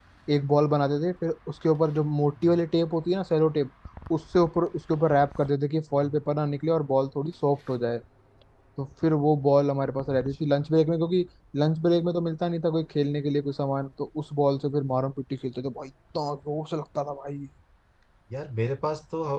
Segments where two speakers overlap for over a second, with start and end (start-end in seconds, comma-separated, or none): none